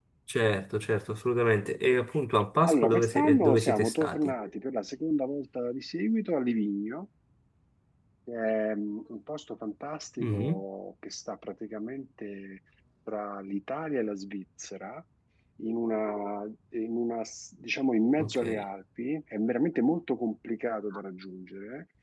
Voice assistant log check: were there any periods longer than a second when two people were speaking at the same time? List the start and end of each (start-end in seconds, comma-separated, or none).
2.7-4.3